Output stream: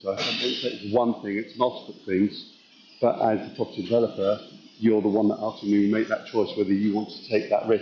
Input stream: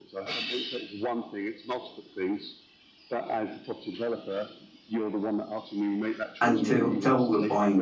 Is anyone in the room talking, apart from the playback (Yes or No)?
Yes